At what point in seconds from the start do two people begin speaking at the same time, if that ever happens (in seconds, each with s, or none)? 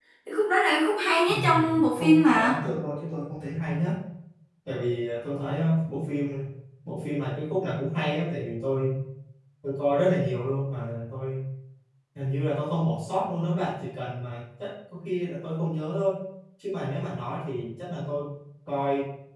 1.3 s